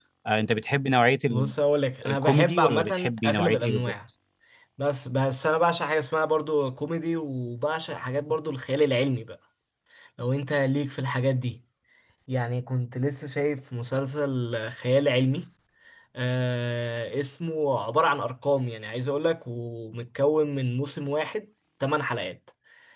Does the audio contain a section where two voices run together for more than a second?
Yes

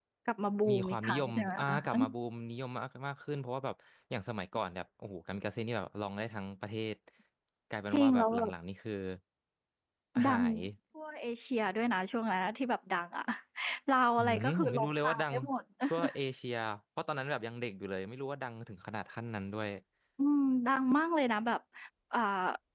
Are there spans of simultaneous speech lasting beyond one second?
Yes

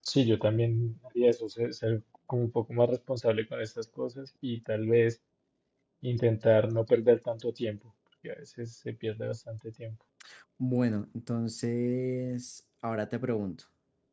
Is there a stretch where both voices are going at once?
No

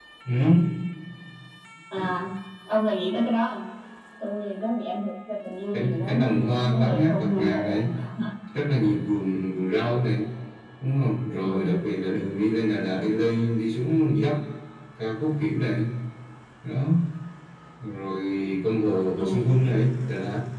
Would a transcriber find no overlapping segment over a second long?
No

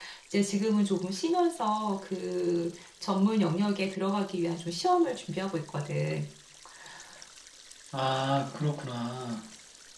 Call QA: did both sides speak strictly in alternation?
Yes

